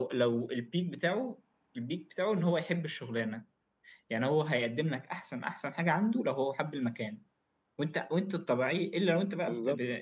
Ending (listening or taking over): listening